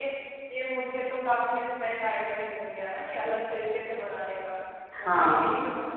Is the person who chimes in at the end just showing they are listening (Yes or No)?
Yes